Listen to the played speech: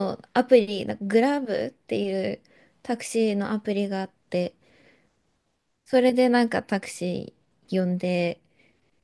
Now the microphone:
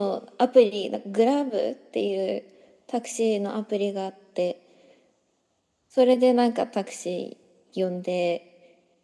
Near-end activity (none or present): none